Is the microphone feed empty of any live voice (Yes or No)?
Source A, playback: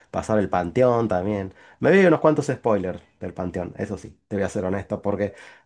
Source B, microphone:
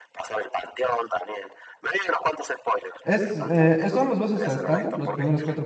No